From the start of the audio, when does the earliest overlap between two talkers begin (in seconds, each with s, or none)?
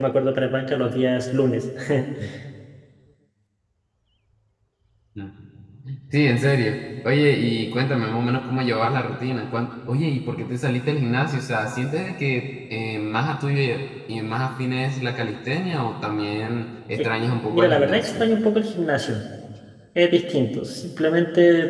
17.0 s